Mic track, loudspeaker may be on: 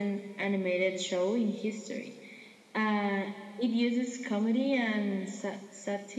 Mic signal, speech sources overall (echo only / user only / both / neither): echo only